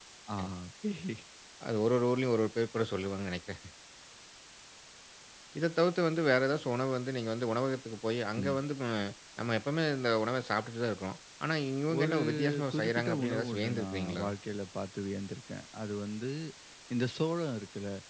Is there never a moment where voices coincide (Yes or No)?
No